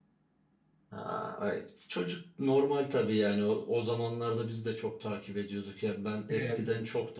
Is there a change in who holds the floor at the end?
No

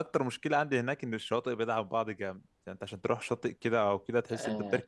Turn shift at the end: Yes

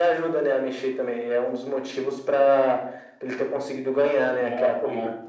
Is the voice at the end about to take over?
Yes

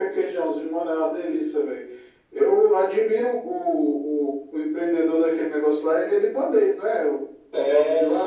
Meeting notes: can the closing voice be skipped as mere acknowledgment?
No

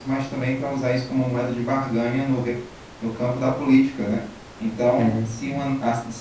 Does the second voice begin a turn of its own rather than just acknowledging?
No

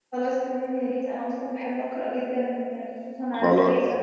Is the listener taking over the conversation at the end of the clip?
Yes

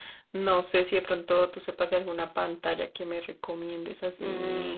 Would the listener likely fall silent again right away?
No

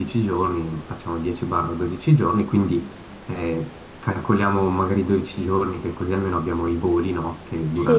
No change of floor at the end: Yes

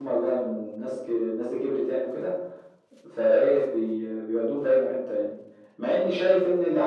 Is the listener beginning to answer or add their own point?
No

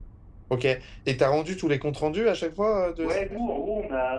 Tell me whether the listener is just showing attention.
No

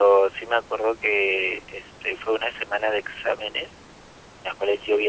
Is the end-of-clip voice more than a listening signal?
No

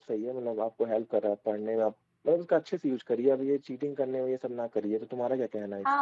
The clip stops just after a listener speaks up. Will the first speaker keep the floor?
No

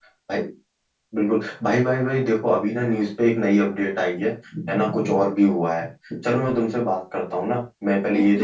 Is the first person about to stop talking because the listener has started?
Yes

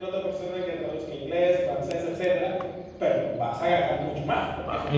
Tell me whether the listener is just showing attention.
Yes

